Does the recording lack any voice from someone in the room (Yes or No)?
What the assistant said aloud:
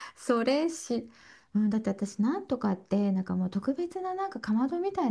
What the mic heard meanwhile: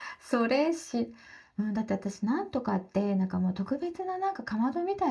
Yes